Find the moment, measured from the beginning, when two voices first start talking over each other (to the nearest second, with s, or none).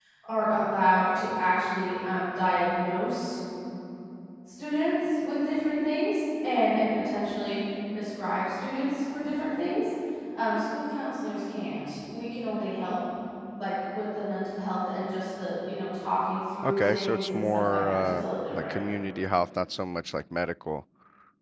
17 s